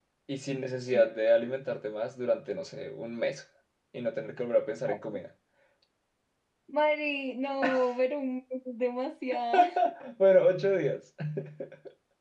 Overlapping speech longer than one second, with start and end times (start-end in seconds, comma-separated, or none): none